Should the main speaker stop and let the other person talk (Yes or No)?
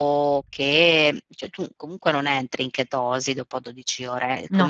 No